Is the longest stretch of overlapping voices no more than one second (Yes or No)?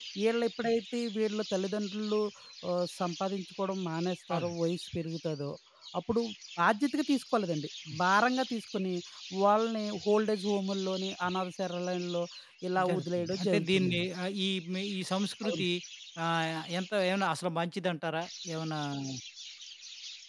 No